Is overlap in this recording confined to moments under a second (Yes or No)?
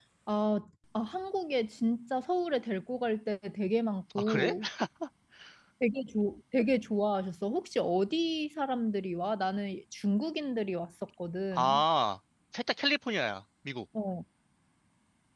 Yes